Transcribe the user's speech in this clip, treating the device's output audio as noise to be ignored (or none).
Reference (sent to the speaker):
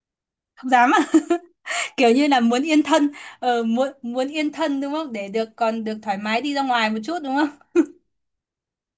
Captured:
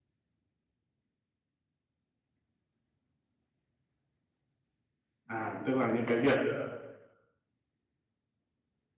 À, tức là những cái việc ờ,